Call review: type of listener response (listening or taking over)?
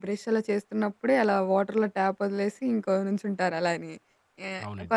listening